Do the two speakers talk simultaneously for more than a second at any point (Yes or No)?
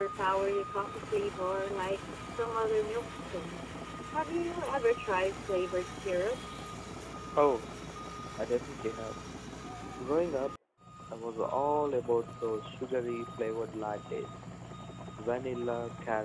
No